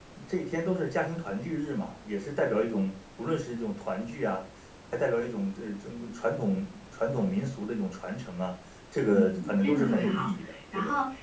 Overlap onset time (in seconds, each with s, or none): 9.1 s